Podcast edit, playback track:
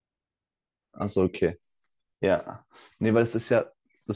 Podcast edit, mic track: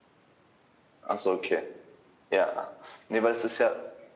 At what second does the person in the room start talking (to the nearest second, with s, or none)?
none